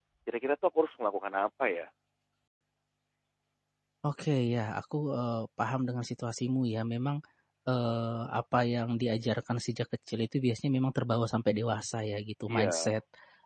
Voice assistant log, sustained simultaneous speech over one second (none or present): none